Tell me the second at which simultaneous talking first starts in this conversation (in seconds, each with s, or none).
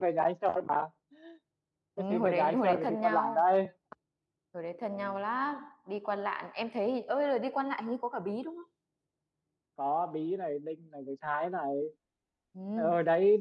2.1 s